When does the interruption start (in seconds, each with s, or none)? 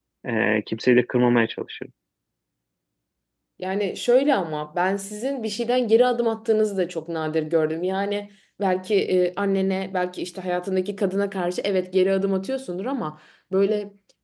none